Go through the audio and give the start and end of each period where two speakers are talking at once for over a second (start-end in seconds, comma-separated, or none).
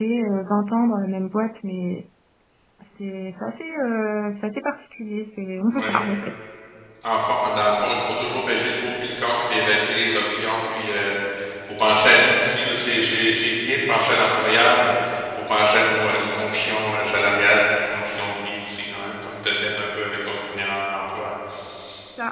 none